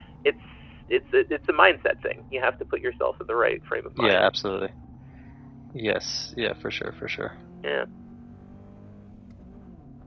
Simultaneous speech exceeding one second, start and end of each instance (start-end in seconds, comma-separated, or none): none